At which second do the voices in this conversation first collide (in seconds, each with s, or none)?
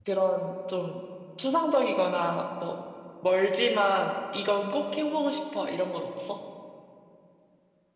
none